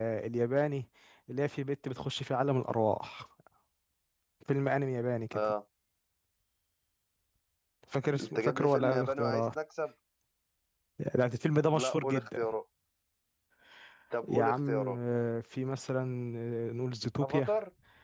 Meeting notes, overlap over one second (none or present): present